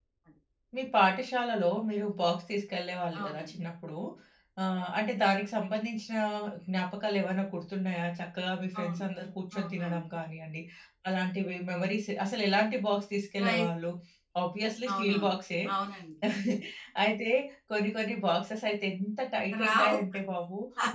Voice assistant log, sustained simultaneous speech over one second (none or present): none